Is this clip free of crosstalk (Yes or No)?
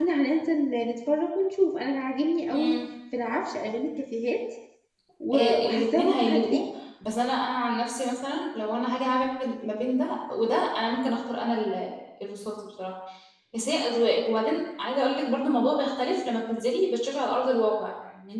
No